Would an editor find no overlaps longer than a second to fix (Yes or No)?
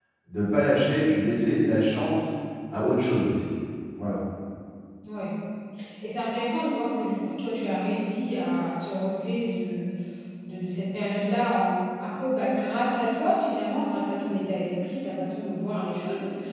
Yes